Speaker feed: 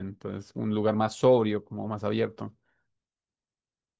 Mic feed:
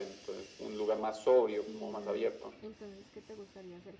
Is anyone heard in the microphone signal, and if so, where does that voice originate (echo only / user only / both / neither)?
both